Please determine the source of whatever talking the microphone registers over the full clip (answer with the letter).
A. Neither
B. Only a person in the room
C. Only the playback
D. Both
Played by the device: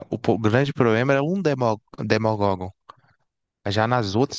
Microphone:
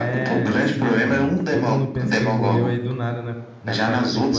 D